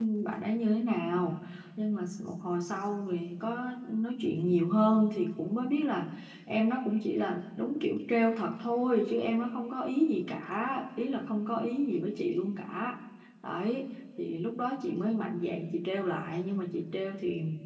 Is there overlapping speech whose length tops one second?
No

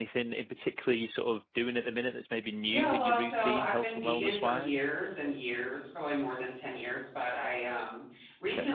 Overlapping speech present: Yes, from 2.6 s

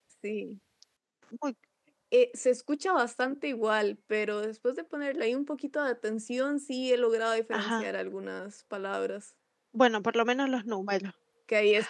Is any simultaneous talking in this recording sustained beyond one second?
No

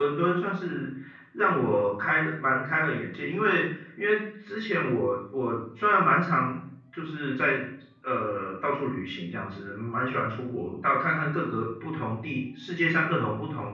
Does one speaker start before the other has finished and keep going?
No

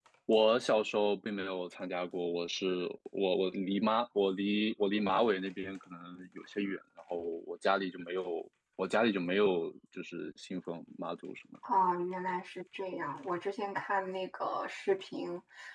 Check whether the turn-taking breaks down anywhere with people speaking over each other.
No

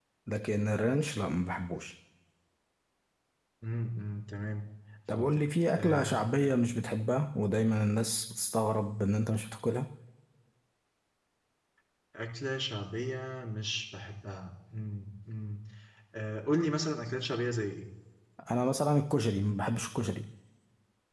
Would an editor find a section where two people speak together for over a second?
Yes, from 5.1 s

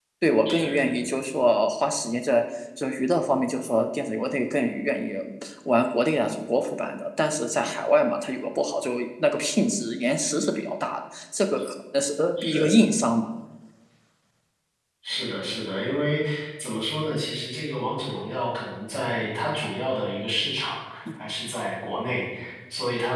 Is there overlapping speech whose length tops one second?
No

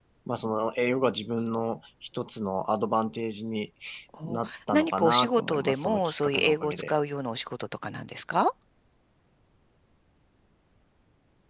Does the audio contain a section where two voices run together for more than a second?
Yes, from 4.2 s

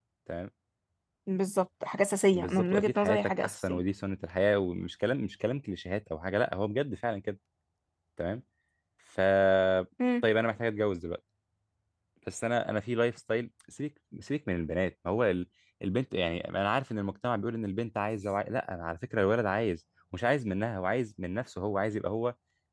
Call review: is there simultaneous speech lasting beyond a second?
Yes, from 2.3 s

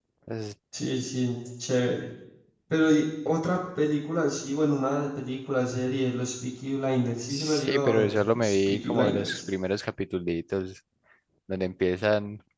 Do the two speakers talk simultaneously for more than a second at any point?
Yes, from 7.3 s

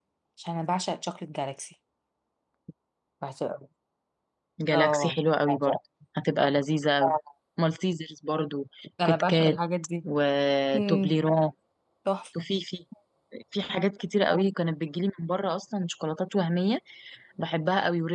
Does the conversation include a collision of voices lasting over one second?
No

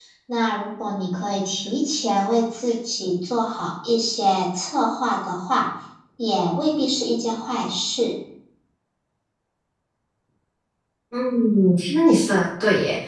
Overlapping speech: No

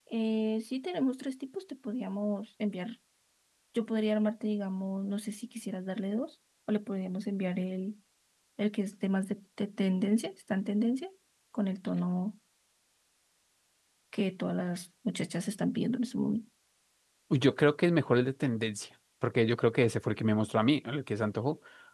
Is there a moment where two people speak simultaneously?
No

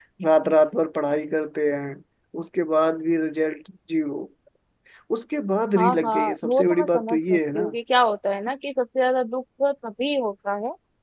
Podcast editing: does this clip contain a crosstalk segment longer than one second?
Yes, from 5.8 s

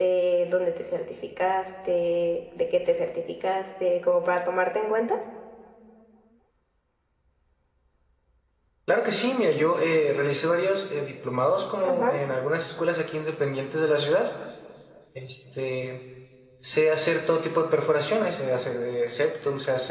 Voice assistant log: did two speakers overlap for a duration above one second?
No

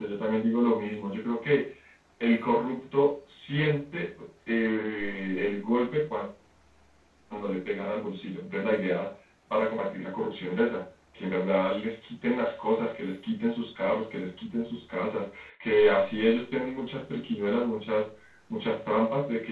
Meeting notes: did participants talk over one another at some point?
No

